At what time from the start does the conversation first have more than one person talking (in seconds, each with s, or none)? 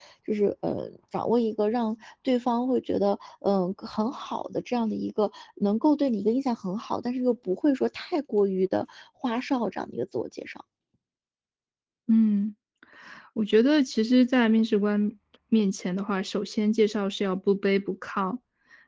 none